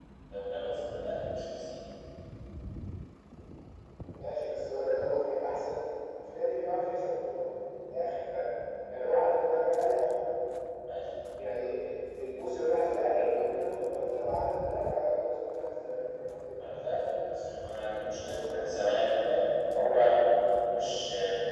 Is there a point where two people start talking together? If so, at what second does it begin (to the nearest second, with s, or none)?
none